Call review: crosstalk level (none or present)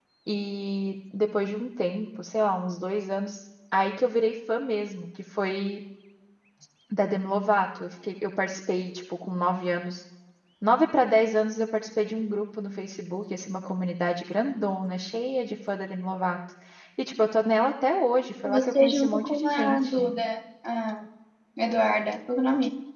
present